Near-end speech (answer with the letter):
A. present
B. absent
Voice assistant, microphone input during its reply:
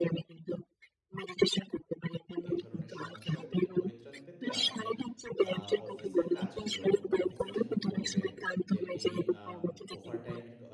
A